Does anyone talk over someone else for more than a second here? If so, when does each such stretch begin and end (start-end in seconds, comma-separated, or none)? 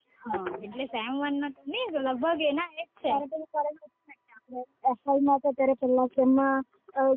none